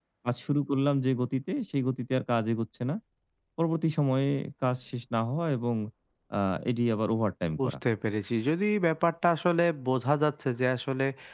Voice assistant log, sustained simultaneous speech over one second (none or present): none